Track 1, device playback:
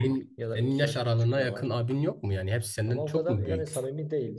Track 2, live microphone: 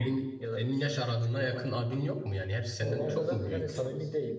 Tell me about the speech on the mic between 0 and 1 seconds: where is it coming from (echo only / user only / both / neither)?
echo only